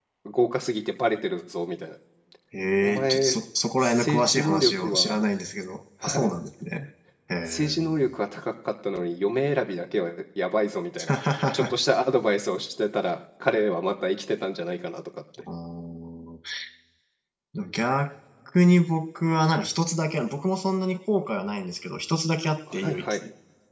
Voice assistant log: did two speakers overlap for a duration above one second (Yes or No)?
Yes